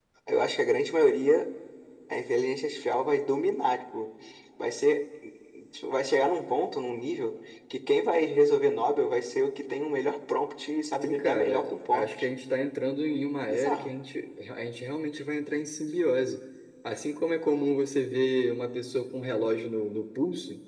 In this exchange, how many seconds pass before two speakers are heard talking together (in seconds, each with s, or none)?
11.0 s